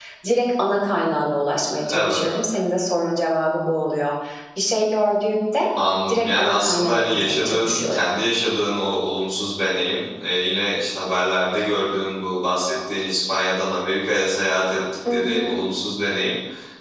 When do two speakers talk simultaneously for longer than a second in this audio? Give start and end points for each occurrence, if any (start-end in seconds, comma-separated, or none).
6.1-8.1